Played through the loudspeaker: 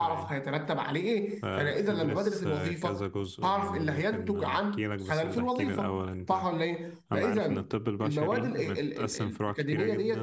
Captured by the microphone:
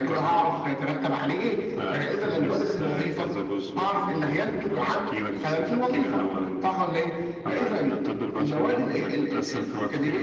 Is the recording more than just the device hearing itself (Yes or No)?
No